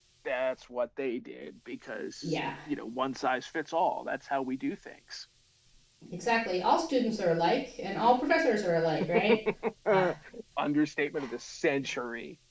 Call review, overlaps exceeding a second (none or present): none